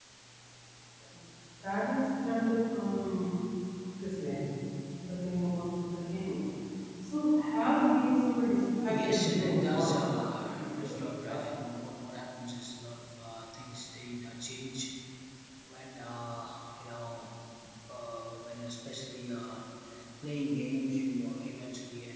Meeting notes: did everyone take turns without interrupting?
No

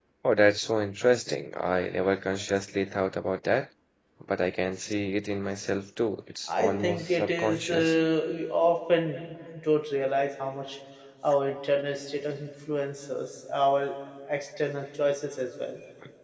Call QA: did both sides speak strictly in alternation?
No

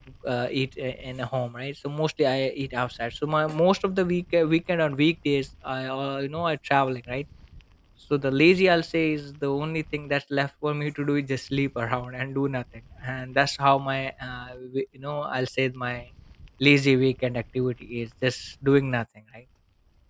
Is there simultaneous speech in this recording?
No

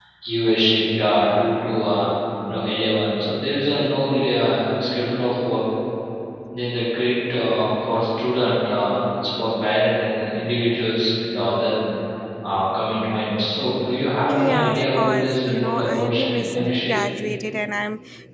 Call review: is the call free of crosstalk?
No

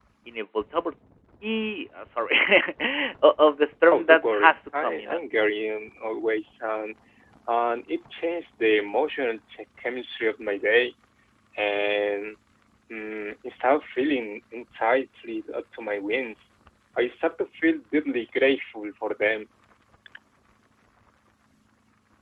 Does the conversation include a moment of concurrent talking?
Yes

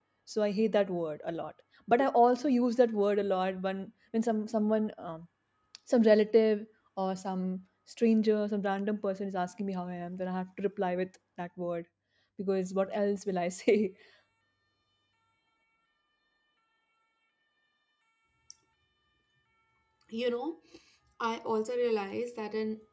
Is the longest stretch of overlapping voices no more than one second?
Yes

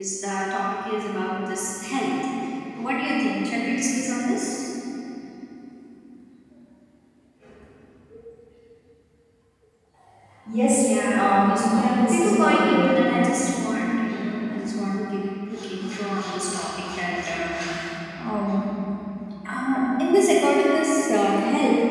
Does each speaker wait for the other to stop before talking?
No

